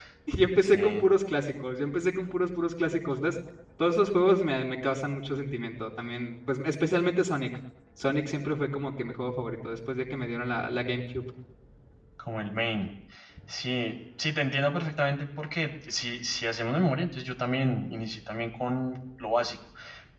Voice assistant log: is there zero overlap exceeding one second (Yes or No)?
Yes